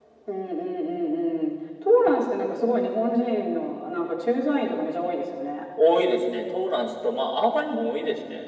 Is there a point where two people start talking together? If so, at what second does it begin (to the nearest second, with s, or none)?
none